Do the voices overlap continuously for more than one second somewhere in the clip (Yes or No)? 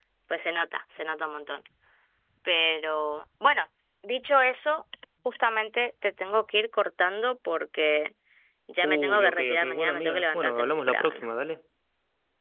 Yes